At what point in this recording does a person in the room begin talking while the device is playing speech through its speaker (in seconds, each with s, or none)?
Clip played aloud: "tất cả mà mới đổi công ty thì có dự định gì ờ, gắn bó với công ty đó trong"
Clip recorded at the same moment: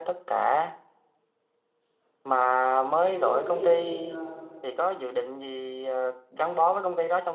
3.0 s